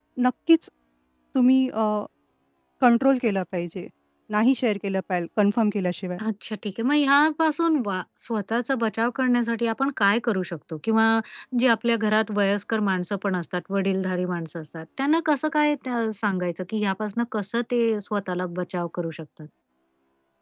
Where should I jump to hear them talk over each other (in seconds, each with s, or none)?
none